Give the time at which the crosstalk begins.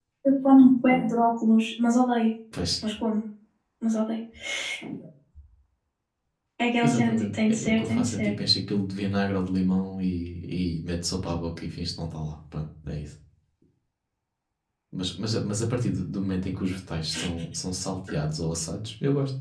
6.8 s

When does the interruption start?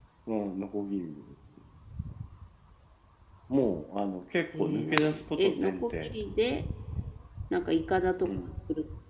4.6 s

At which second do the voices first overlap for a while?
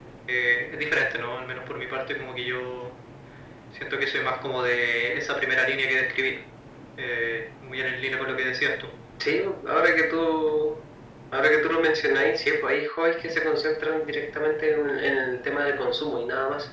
none

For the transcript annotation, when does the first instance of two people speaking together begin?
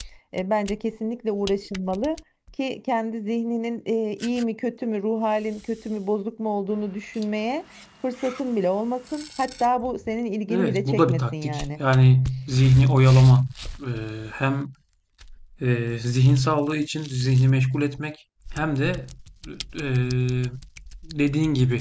10.5 s

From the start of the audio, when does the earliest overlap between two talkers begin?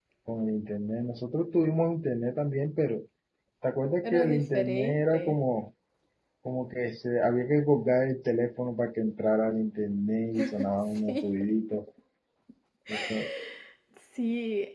4.0 s

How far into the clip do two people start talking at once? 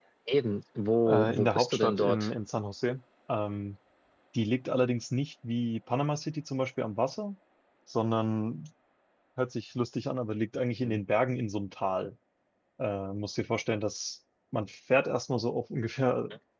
1.1 s

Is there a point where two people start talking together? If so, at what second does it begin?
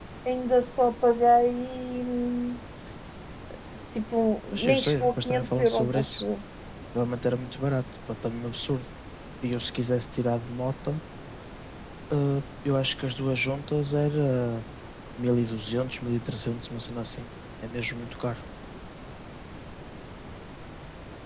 4.5 s

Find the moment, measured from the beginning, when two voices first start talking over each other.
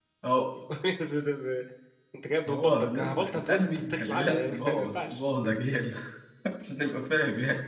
2.5 s

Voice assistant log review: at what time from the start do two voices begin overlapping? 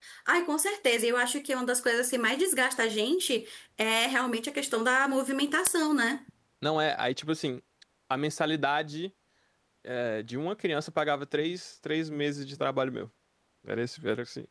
none

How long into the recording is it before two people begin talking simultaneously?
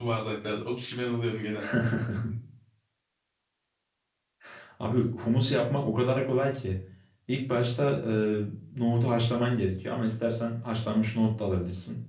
none

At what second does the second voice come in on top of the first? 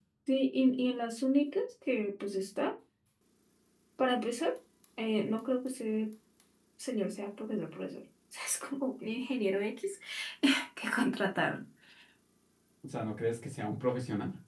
none

